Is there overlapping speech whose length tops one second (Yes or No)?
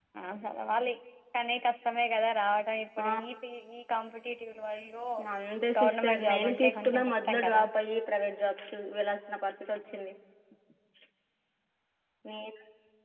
Yes